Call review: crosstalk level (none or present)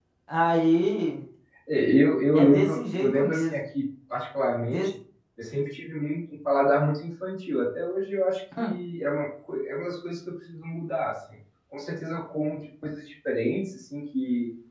present